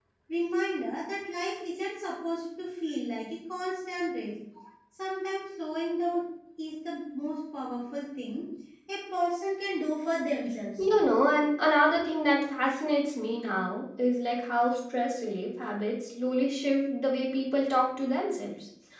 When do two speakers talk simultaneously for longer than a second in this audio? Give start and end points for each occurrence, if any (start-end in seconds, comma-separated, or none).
none